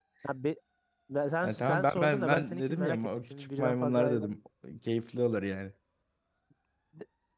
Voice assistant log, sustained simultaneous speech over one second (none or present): present